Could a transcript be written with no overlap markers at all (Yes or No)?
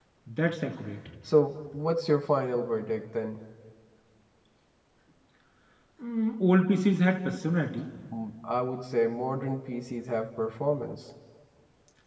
Yes